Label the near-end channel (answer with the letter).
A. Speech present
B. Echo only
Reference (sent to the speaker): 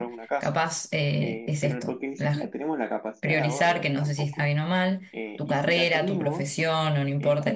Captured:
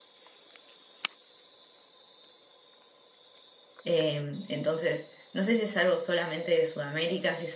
A